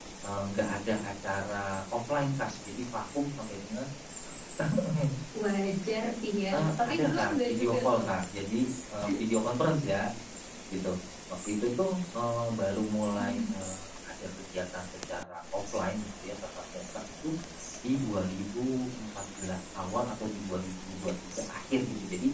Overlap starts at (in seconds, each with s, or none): 6.5 s